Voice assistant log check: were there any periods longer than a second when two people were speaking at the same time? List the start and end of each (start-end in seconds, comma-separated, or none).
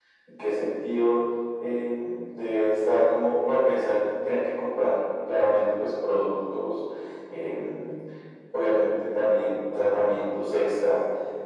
none